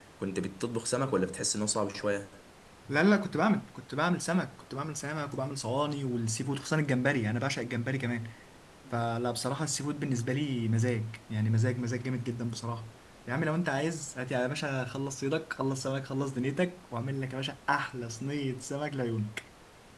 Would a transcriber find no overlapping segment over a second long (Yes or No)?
Yes